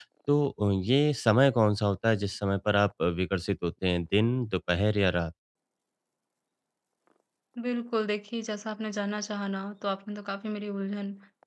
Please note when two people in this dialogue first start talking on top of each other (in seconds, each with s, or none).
none